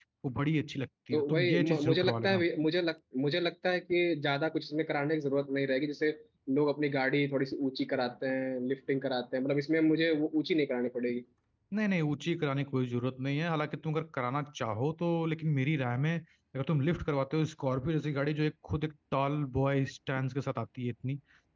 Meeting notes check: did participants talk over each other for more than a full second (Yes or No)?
Yes